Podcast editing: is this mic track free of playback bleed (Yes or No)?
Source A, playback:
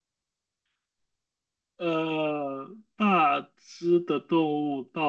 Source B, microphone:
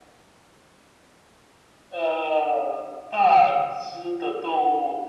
No